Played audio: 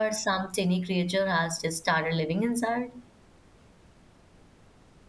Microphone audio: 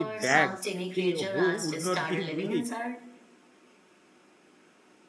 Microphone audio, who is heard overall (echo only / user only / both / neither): both